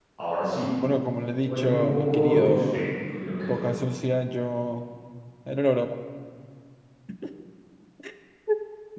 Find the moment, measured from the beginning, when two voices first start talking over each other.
1.4 s

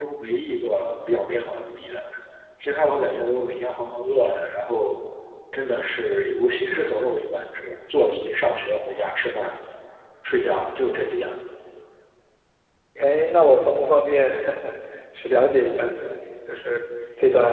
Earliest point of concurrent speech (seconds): none

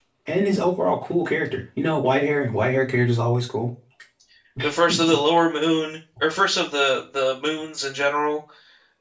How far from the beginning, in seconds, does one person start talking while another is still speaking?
none

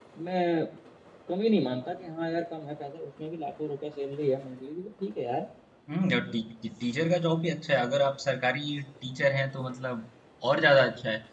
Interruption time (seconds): none

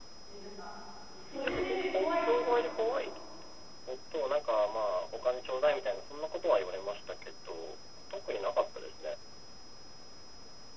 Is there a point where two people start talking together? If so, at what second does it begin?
1.3 s

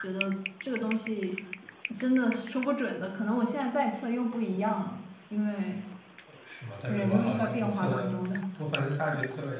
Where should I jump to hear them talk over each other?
6.9 s

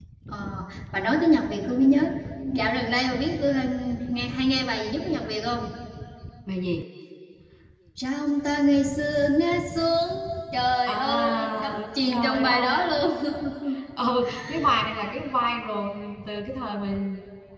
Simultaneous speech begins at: 10.9 s

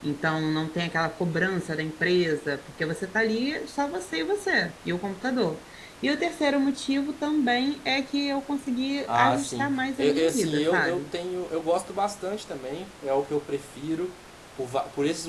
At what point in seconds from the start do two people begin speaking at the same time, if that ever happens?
9.1 s

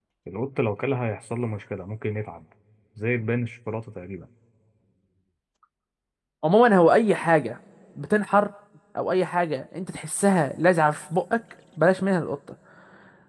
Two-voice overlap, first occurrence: none

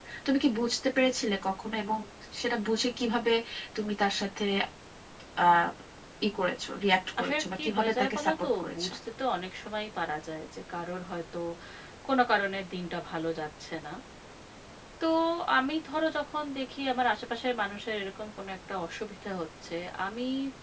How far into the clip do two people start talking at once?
7.2 s

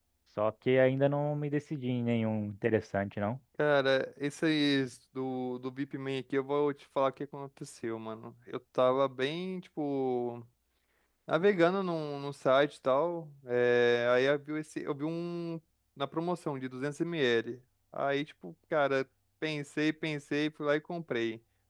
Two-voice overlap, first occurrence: none

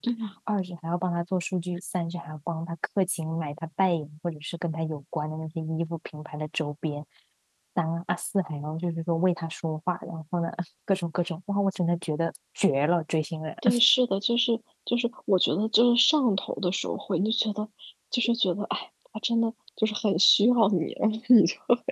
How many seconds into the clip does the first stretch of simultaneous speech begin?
none

